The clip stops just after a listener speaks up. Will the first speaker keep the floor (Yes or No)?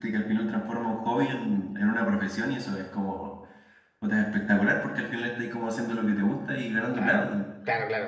No